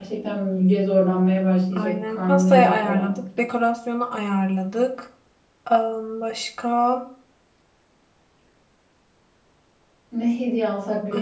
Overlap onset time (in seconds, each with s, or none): 1.8 s